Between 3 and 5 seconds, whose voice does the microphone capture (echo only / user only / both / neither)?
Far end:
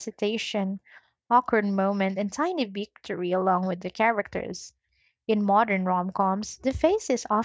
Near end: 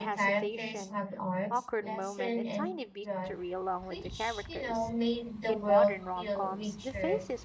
both